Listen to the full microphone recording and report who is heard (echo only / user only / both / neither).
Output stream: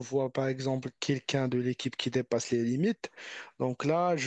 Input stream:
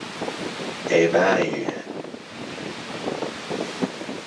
user only